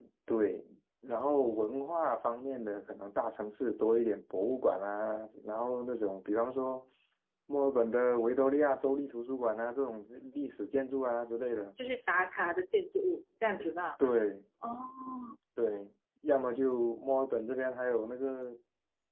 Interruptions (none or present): none